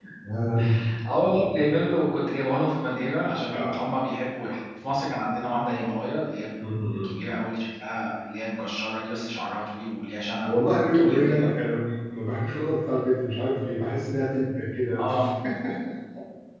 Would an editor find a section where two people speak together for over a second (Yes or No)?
No